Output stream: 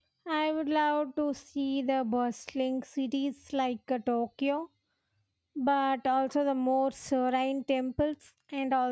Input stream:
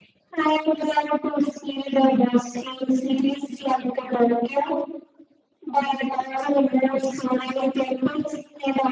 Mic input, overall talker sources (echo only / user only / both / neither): echo only